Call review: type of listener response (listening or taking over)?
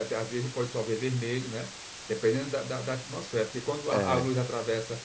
listening